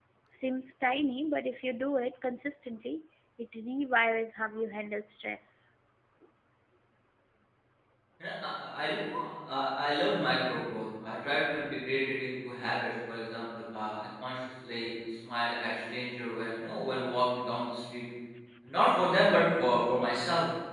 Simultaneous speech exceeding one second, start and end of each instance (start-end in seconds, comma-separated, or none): none